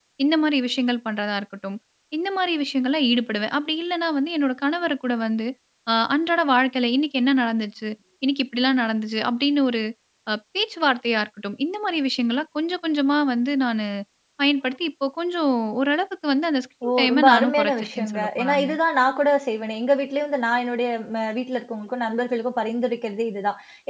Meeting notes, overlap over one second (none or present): present